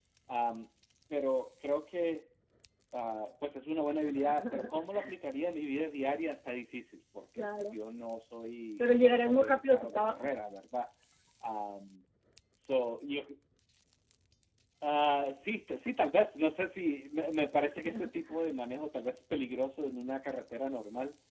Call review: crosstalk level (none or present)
present